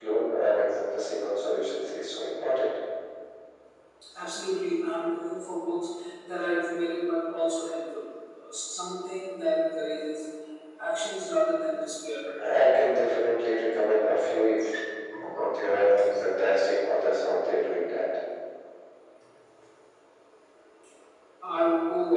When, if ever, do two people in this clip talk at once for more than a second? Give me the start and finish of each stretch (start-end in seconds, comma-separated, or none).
none